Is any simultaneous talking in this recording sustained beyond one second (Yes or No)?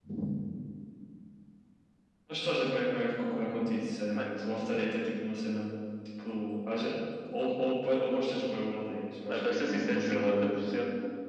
Yes